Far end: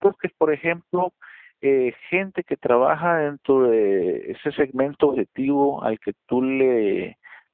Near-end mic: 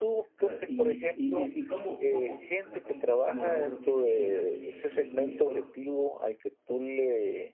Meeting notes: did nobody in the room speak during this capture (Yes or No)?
No